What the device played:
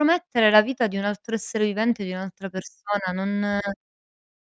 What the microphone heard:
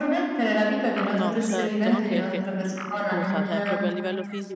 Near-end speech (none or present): present